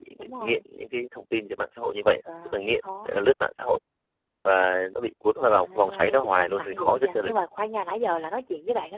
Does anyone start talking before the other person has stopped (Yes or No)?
Yes